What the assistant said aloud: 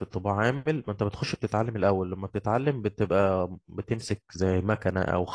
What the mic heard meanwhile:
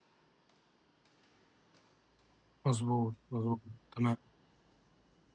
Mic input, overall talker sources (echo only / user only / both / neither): user only